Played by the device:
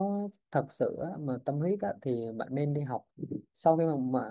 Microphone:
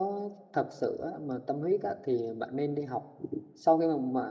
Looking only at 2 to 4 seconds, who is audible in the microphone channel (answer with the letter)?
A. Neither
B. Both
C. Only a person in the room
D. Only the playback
D